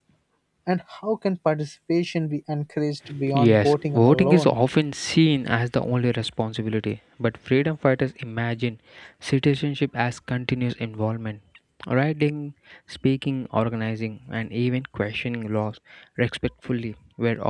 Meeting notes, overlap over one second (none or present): present